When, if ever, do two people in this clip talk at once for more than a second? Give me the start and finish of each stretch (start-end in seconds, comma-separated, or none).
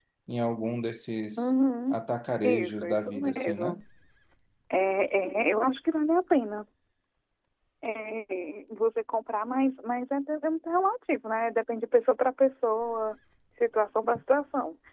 2.4-3.8